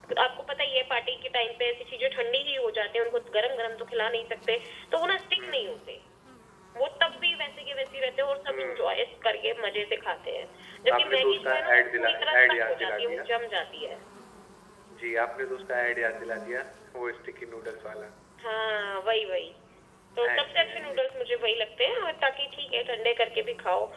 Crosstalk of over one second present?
Yes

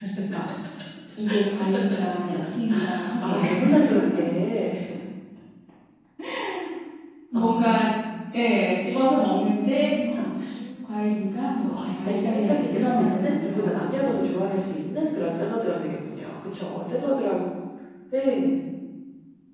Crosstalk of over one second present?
Yes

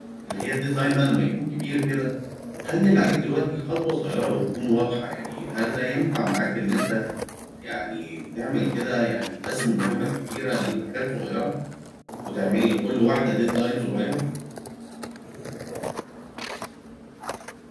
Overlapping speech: No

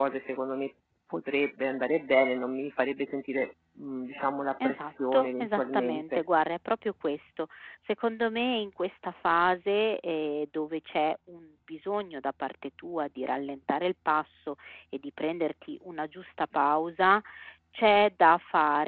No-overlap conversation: No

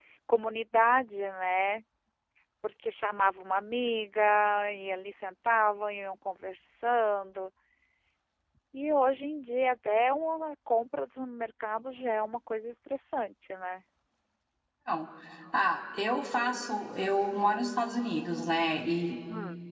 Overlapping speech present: No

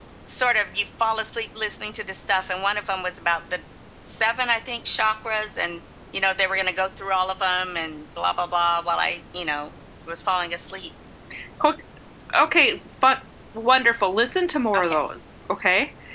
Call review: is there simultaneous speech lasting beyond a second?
No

